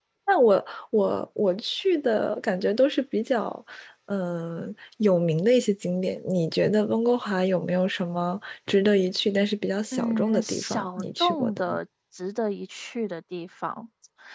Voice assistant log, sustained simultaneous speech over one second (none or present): present